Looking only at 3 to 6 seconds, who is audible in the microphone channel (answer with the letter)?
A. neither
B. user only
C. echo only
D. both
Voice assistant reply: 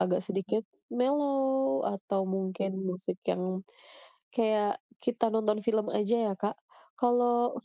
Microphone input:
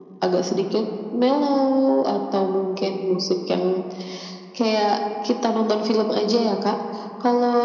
C